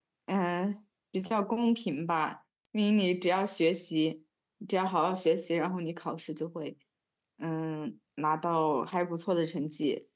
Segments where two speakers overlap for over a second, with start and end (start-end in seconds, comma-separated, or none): none